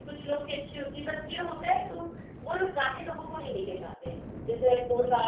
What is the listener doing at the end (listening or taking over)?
listening